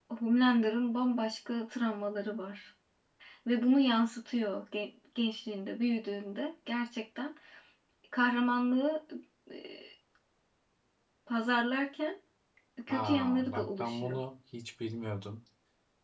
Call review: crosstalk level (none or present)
present